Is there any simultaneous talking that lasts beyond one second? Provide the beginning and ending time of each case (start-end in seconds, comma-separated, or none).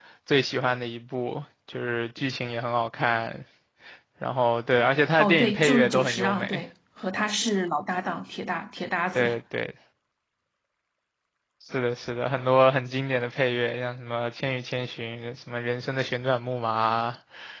5.2-6.6